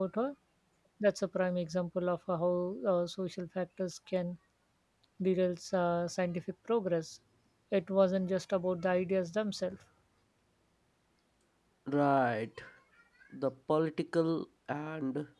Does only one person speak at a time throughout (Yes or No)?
Yes